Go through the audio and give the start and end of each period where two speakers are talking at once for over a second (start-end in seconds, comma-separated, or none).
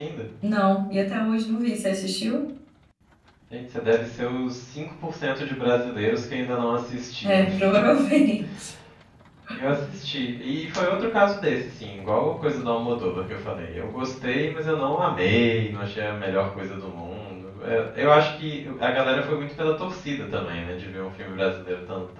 none